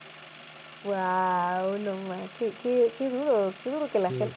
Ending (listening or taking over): taking over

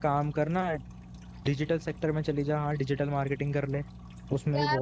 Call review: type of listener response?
taking over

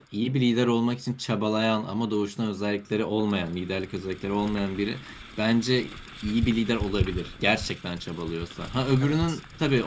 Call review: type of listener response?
listening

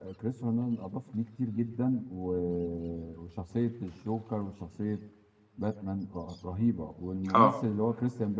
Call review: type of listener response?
listening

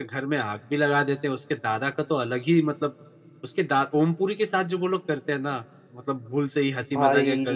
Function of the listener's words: listening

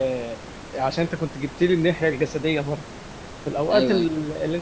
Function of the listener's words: listening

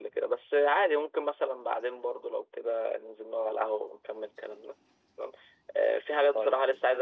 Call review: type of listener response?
listening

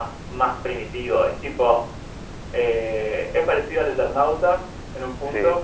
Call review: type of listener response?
listening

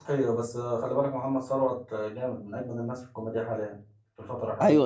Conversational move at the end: taking over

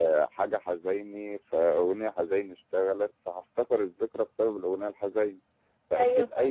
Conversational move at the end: listening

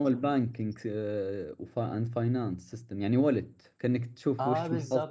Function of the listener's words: taking over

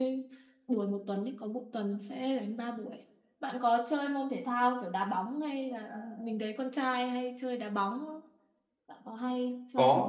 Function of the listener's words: taking over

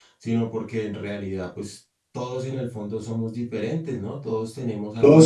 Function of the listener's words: taking over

